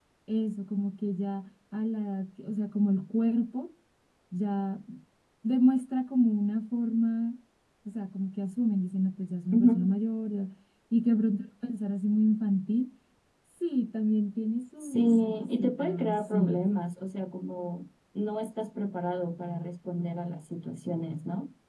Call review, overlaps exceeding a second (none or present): present